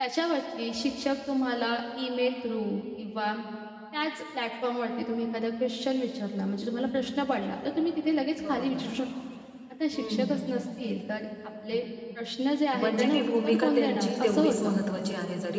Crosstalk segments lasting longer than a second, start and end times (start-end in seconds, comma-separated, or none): 12.7-14.7